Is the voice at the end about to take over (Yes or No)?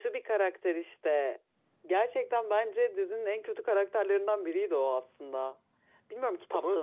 No